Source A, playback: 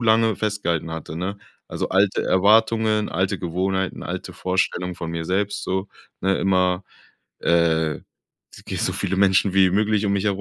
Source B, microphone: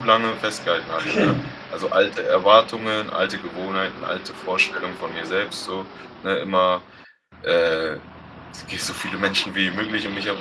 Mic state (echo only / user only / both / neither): both